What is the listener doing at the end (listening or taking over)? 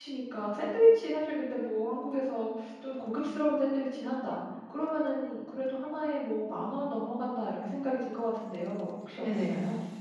taking over